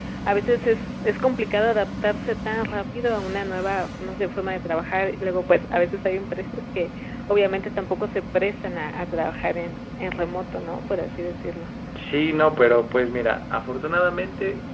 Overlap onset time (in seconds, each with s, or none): none